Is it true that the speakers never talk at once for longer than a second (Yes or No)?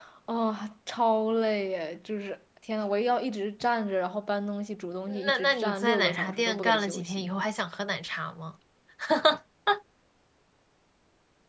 No